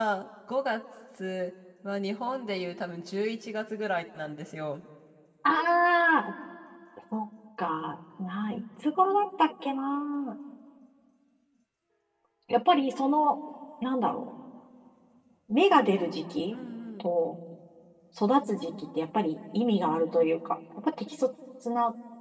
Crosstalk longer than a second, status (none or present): none